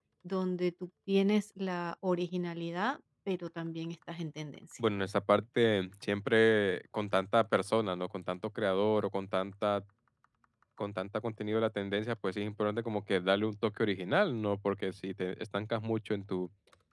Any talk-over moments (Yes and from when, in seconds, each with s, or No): No